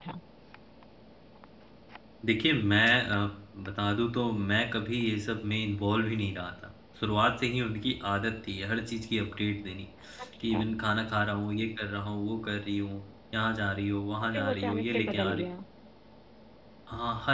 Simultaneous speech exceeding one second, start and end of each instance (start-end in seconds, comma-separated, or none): 14.2-15.4